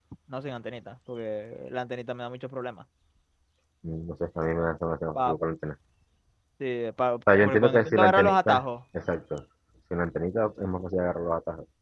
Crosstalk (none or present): present